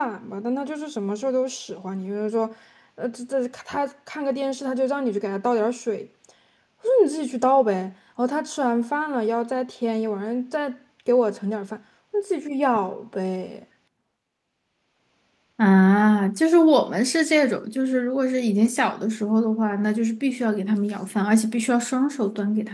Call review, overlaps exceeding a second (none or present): none